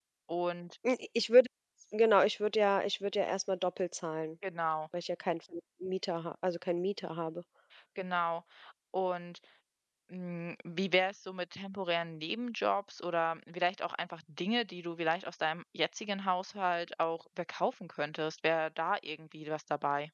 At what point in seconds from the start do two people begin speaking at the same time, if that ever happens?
none

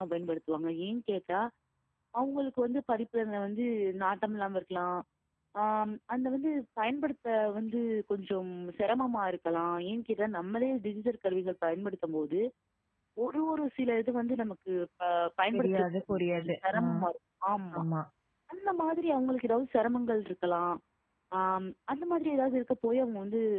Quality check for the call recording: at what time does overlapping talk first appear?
16 s

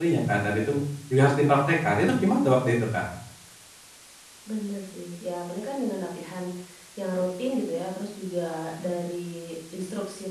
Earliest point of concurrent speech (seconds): none

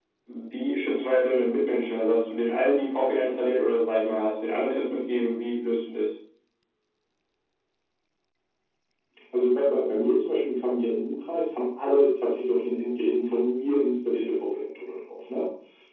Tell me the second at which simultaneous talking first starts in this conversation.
none

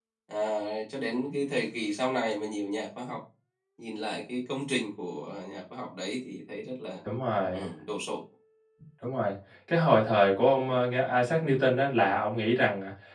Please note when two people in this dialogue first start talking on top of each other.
none

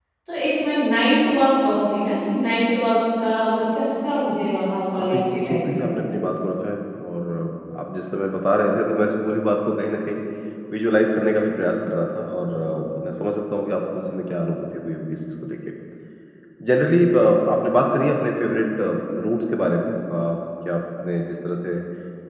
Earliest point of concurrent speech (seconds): 5 s

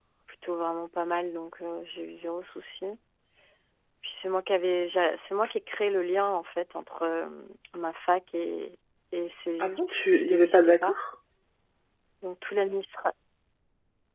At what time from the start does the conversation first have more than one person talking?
10 s

